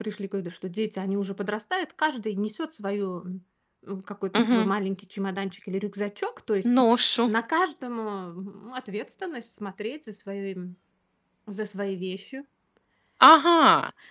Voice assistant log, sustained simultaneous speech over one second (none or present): none